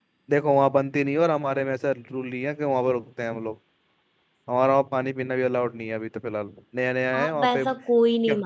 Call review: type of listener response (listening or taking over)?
taking over